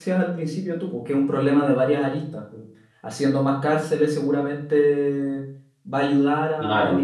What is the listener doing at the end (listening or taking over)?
listening